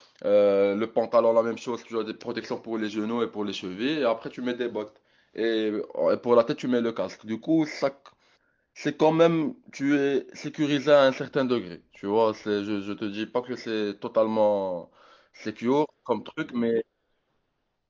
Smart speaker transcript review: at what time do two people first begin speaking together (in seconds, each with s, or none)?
none